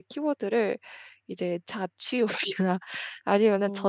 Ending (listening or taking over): listening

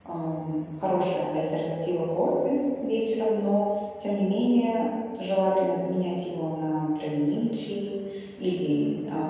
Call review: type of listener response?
listening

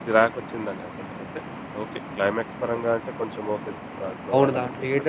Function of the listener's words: taking over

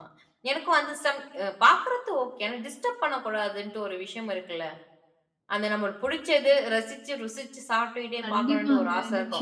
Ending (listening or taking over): taking over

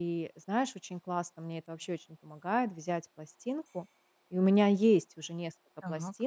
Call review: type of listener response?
listening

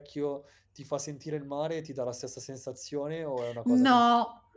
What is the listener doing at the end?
taking over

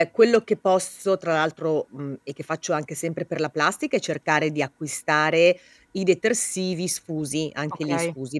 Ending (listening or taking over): listening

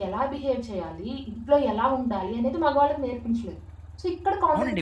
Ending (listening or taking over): taking over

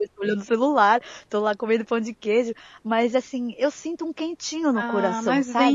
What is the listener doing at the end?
taking over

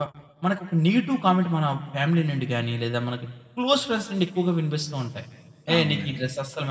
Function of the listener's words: listening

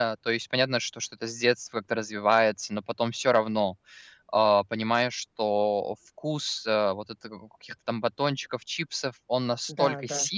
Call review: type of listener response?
listening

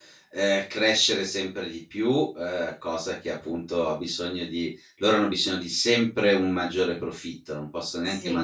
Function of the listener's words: listening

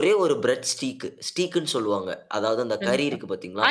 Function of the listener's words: taking over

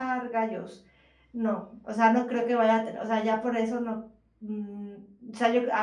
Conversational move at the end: taking over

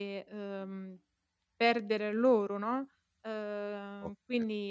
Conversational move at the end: taking over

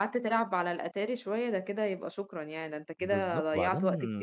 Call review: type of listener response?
taking over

